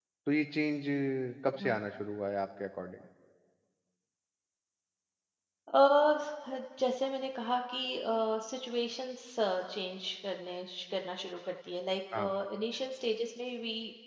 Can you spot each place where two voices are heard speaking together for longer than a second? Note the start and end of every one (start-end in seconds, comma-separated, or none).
none